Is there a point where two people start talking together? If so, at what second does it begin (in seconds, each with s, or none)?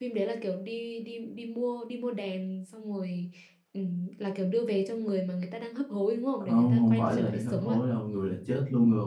6.4 s